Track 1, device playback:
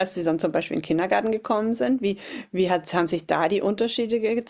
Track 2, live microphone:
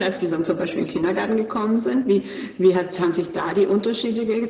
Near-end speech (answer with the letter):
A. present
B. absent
B